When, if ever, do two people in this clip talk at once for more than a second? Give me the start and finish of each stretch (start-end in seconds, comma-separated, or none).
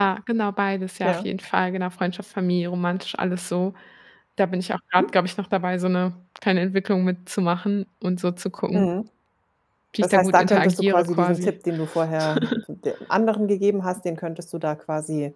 10.0-11.5